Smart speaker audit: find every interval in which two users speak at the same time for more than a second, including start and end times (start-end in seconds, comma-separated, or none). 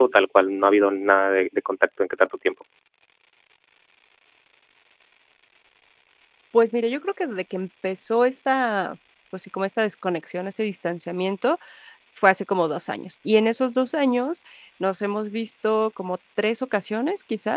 none